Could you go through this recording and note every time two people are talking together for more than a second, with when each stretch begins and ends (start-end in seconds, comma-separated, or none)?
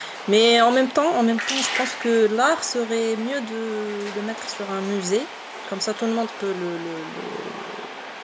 none